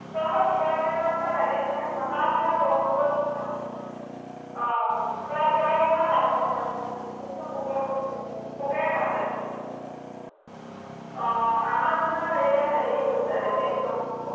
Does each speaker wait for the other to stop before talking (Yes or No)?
No